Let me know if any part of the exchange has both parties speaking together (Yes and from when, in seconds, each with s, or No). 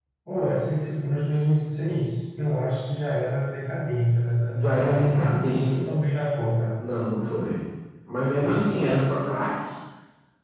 Yes, from 4.6 s